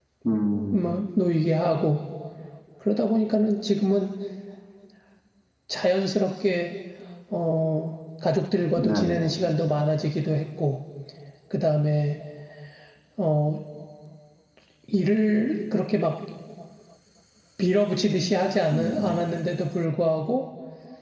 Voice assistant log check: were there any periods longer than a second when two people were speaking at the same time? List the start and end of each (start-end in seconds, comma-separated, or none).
none